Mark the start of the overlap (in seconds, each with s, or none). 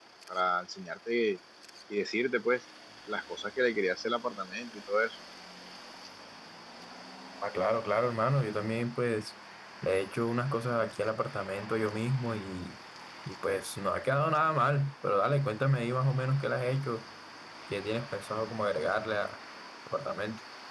none